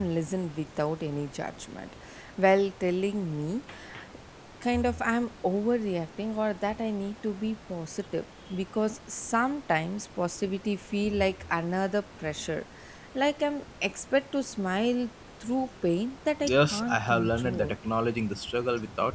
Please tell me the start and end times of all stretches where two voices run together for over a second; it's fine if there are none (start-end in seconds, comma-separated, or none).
16.4-17.7